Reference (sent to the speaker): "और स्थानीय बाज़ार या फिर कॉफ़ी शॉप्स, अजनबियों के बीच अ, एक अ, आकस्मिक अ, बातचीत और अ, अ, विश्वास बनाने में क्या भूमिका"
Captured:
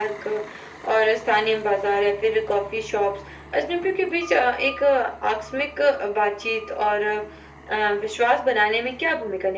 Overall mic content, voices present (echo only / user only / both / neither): echo only